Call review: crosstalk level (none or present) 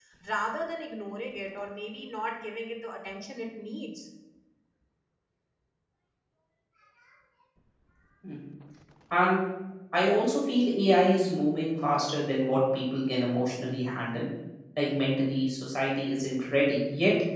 none